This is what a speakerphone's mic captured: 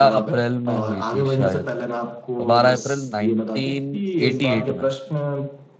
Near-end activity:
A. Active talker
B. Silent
A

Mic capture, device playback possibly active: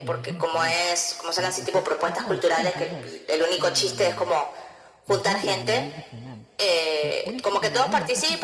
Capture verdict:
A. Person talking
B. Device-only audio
A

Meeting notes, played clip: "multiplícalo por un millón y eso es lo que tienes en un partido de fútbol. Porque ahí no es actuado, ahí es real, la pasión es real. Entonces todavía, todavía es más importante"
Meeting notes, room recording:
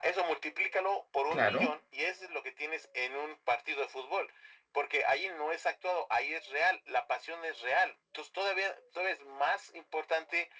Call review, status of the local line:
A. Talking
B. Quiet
A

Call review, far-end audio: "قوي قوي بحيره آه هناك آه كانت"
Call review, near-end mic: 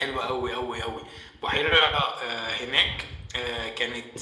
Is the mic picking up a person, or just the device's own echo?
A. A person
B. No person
B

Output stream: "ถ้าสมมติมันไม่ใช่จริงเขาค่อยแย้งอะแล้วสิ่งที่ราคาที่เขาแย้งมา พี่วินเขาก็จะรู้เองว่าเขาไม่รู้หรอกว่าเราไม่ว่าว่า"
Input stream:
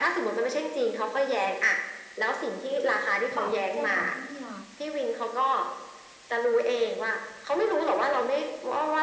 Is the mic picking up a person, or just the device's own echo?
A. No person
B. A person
B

